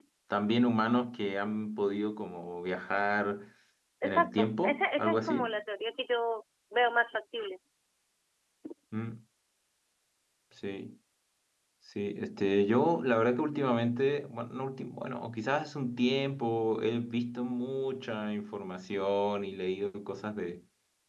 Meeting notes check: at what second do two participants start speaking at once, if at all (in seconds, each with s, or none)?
4.0 s